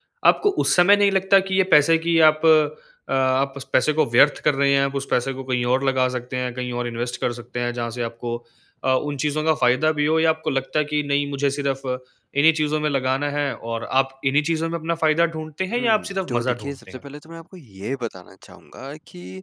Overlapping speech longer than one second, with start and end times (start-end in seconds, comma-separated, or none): 15.8-17.0